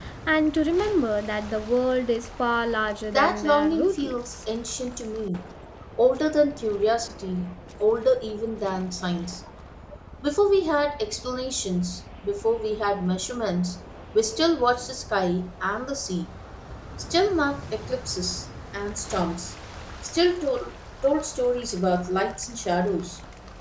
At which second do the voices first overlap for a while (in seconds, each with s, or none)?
3.1 s